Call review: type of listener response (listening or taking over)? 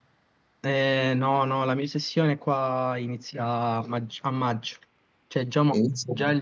listening